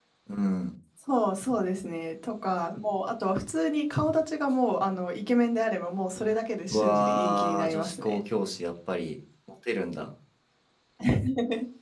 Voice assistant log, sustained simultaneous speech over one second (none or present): present